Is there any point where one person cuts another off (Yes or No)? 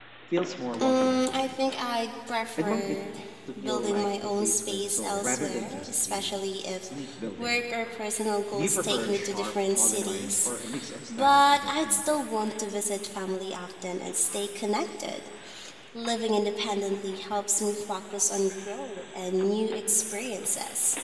Yes